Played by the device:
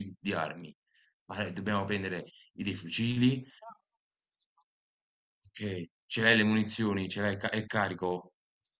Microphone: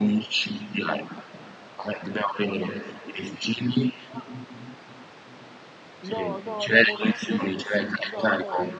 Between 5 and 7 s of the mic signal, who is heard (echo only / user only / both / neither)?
both